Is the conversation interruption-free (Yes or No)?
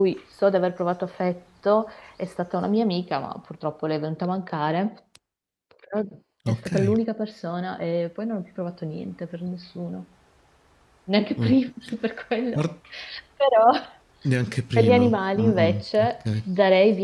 No